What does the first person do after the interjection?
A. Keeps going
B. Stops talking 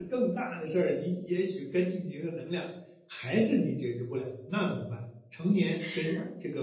A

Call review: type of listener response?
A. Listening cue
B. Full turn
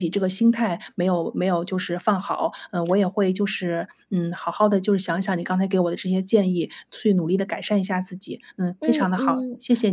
B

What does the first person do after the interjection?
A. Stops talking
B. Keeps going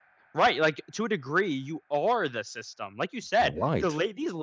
B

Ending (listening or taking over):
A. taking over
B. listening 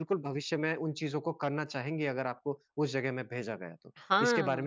A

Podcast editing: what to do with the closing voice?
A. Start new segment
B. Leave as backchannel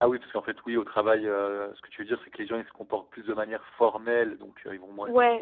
B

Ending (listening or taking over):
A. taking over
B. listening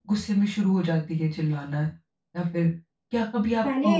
B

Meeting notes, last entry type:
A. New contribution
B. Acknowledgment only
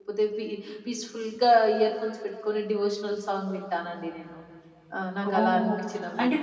A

